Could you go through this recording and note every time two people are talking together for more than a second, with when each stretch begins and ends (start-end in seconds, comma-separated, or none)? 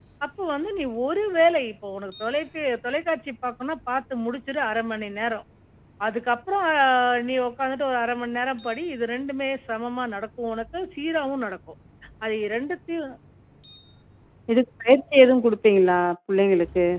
none